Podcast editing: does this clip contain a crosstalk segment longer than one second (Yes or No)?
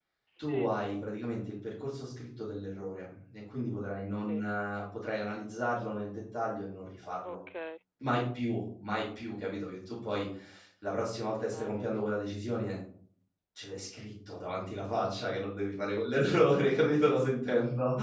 No